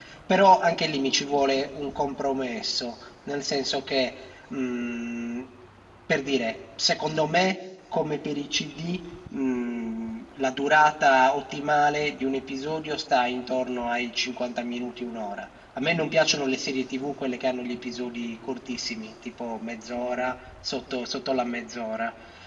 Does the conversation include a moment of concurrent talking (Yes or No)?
No